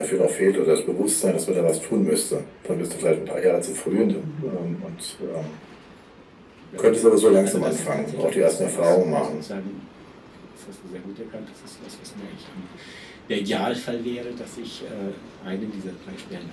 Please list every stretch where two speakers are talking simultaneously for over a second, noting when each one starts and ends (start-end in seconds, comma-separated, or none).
7.4-9.4